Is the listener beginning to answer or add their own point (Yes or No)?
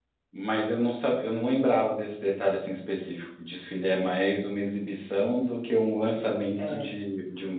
No